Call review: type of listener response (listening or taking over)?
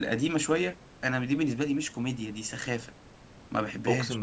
taking over